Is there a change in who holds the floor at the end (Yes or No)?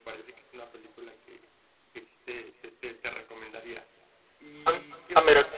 Yes